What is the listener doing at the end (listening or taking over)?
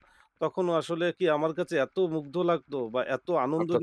listening